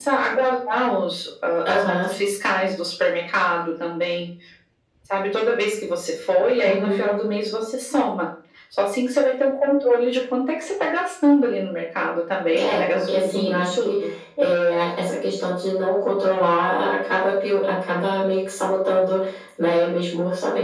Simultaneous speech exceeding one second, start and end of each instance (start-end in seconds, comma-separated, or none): 12.6-13.9